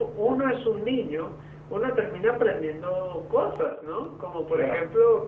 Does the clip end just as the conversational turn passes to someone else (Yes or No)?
No